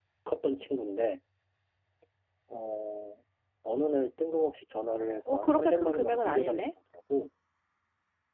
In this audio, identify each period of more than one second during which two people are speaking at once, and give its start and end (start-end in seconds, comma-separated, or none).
5.3-6.7